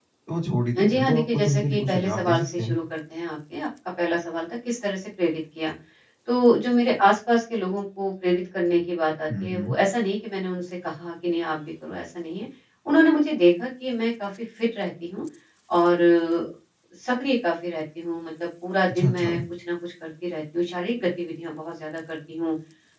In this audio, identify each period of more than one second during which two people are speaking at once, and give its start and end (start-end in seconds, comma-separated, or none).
0.8-2.8